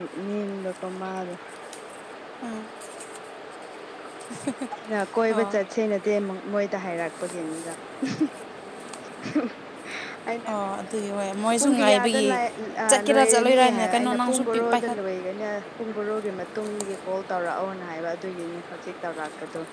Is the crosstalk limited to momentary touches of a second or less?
No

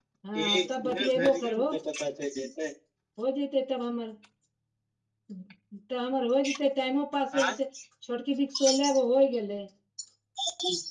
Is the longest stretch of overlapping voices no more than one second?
No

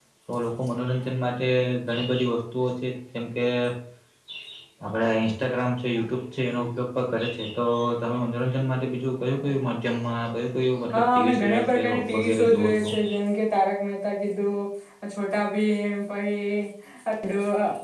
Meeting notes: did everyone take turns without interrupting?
No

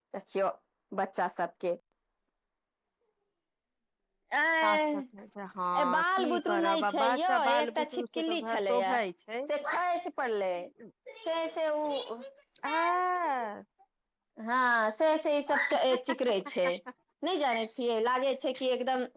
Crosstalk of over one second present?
Yes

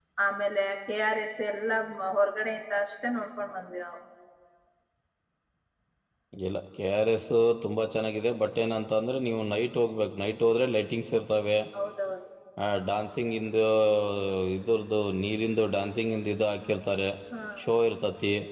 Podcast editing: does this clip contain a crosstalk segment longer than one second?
No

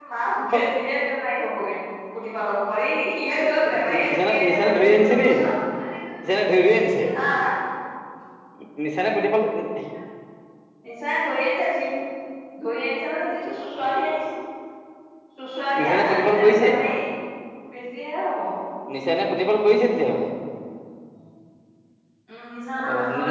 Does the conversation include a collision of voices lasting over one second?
Yes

